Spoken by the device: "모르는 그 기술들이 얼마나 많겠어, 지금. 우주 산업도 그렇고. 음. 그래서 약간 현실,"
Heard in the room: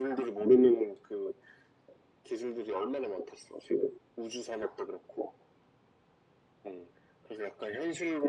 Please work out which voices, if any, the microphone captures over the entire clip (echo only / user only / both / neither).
echo only